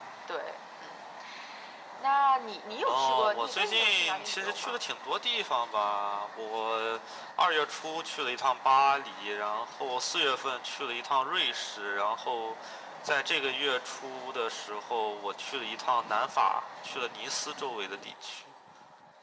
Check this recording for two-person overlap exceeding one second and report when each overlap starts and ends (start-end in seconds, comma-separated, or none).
2.8-4.8